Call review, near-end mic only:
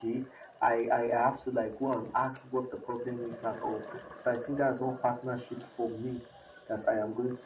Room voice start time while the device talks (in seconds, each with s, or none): none